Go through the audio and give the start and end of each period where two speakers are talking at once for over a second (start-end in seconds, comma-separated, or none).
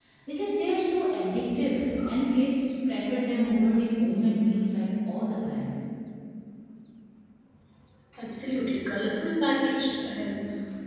none